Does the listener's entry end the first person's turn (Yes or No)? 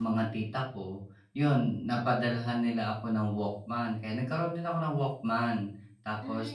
No